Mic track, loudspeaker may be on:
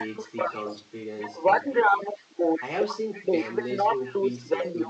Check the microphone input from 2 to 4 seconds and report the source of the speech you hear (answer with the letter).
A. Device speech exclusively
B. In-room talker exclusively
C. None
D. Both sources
D